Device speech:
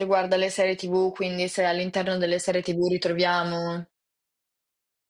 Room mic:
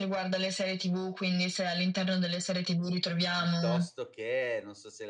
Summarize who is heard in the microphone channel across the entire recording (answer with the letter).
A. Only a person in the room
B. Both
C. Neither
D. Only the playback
B